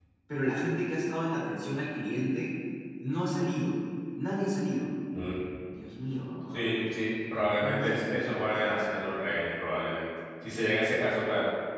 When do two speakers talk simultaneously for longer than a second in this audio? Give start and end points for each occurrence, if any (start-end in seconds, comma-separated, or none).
7.6-8.8